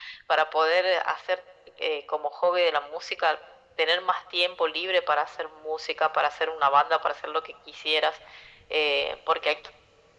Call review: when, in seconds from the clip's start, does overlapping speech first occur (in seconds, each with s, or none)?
none